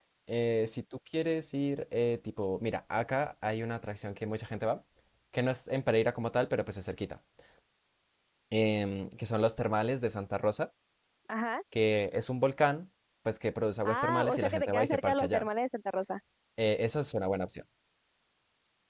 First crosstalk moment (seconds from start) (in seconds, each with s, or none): 13.8 s